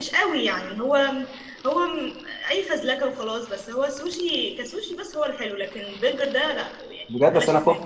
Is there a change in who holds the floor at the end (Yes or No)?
Yes